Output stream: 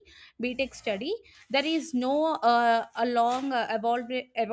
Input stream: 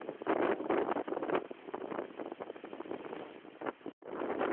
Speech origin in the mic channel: neither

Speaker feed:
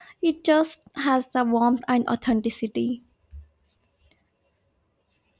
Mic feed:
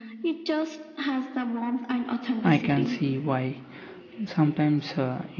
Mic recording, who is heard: both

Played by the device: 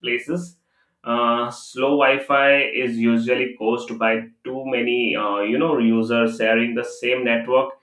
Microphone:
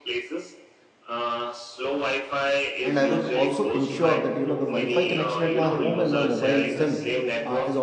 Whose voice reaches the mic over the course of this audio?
both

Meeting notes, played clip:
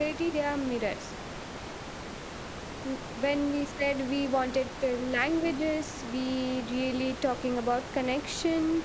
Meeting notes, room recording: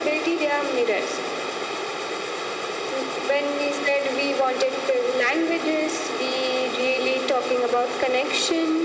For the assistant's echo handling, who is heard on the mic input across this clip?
echo only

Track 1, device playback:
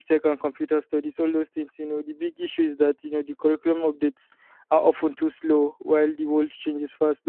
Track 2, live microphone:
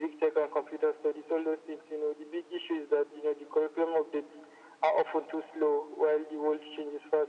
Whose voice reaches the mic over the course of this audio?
echo only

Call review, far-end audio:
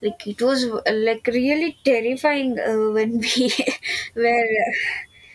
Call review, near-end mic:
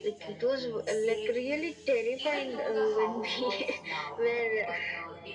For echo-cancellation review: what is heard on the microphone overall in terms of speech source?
both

